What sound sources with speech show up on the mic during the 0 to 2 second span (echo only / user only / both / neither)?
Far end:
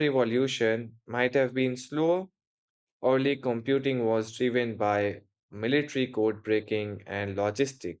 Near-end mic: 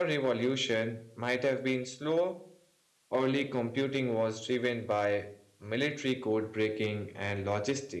echo only